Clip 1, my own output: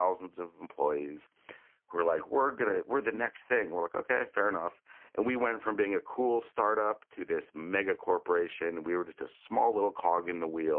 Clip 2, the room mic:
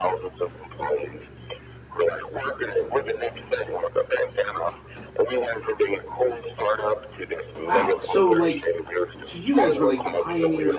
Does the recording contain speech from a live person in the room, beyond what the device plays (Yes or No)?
Yes